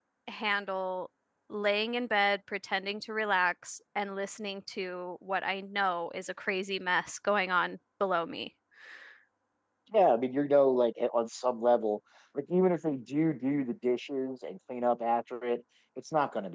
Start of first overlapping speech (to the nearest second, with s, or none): none